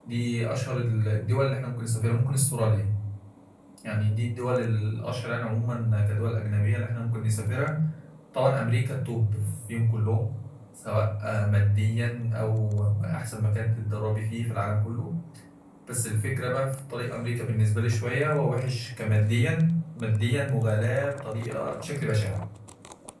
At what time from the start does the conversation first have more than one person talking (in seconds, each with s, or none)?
none